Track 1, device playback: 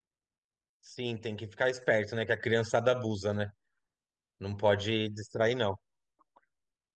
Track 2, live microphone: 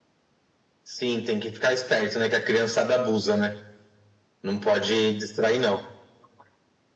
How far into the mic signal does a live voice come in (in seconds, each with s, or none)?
none